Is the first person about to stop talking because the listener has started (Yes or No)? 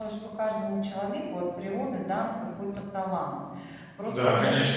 Yes